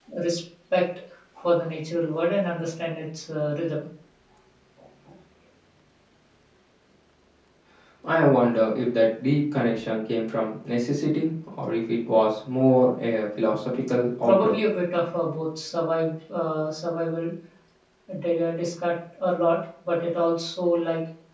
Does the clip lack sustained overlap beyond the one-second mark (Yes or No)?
Yes